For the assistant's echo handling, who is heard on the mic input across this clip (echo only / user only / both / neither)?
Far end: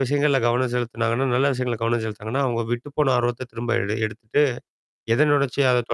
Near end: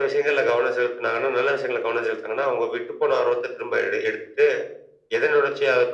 echo only